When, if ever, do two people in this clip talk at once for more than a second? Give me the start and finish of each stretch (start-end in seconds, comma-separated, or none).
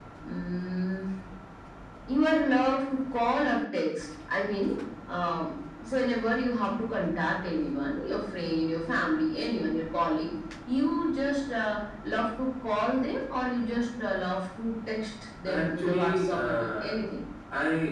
15.6-17.0